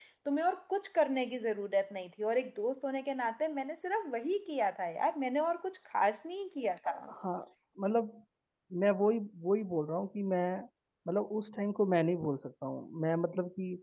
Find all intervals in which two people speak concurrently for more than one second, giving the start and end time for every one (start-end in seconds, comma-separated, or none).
none